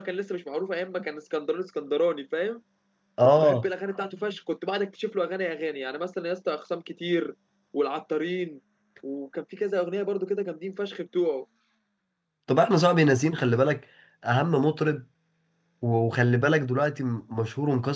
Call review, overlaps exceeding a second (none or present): none